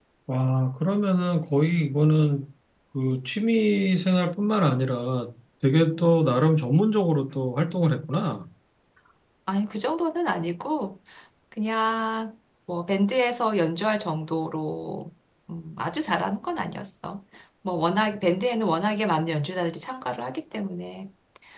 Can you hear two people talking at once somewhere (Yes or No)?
No